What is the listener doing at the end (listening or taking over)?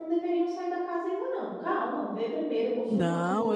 taking over